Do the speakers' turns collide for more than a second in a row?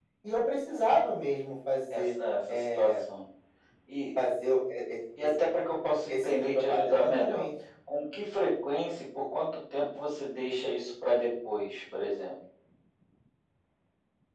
Yes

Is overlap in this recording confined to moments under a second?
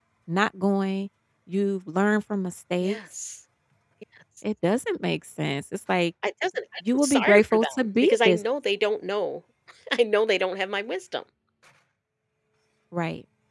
No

